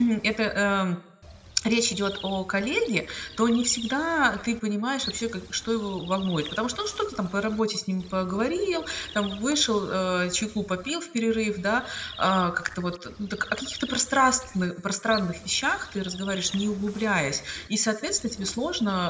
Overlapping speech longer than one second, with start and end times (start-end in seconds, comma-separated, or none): none